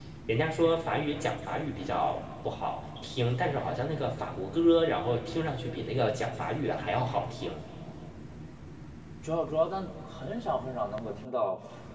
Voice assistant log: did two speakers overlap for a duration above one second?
No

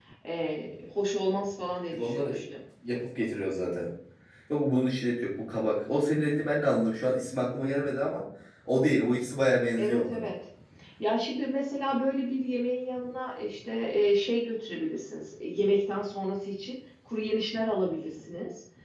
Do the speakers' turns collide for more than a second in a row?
No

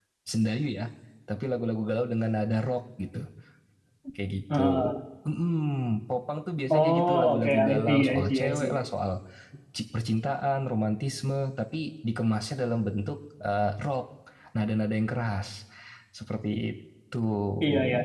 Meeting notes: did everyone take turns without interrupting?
No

